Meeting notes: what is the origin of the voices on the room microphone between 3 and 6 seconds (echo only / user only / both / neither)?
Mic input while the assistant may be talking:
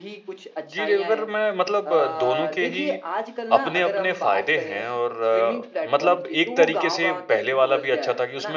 both